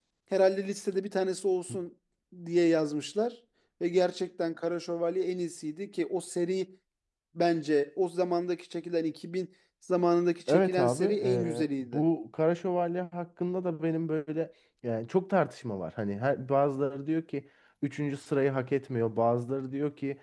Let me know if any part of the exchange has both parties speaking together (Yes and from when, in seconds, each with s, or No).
Yes, from 10.5 s